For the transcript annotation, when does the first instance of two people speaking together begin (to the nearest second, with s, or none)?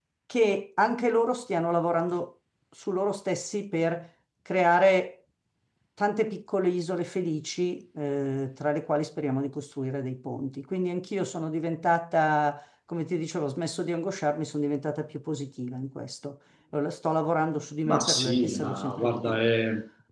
18 s